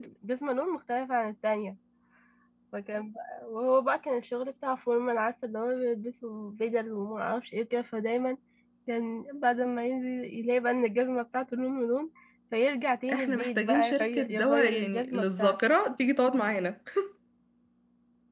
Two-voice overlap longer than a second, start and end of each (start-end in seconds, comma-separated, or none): 13.1-15.6